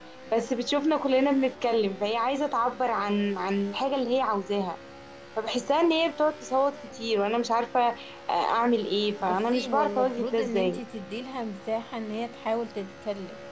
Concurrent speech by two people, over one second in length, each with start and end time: 9.2-10.8

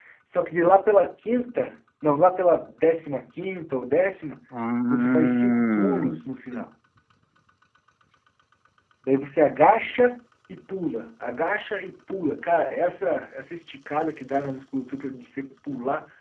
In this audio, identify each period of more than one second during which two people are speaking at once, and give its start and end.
4.9-6.1

